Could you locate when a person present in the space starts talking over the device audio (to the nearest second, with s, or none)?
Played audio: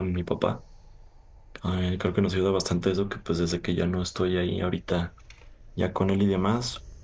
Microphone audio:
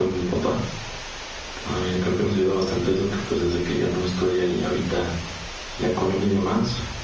none